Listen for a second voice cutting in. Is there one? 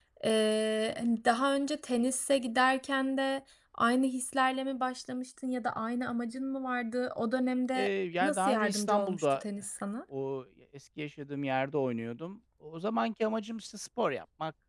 Yes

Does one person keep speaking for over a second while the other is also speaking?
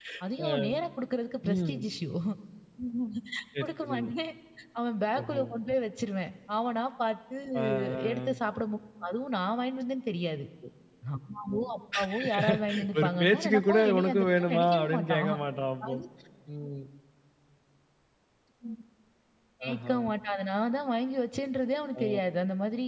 Yes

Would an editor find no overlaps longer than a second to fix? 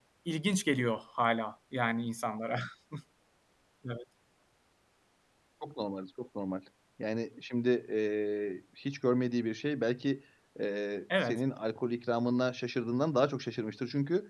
Yes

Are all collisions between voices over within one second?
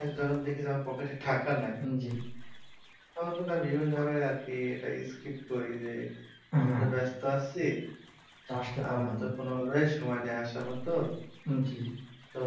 Yes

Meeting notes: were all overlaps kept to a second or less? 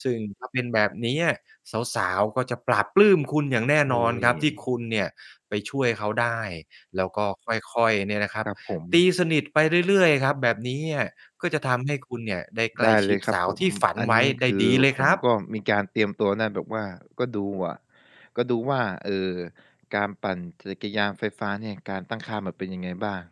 No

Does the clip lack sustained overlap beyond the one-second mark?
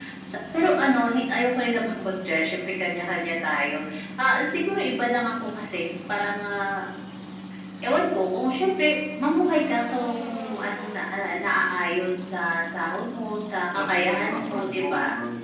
No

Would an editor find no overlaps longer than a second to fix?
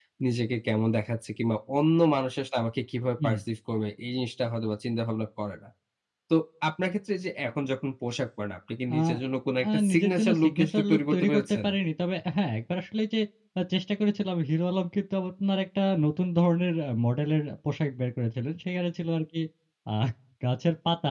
No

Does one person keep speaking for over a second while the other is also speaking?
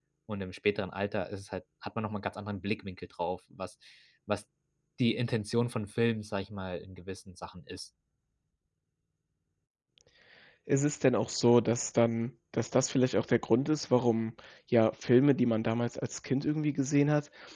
No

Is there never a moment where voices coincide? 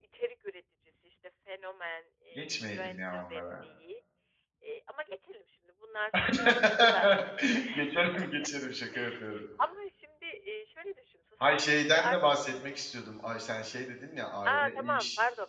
No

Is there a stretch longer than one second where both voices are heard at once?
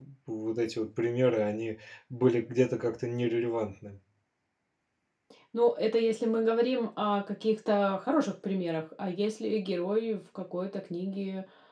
No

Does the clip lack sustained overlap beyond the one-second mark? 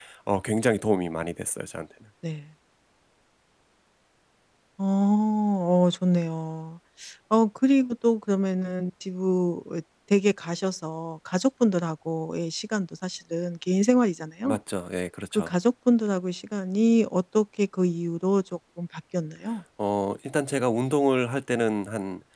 Yes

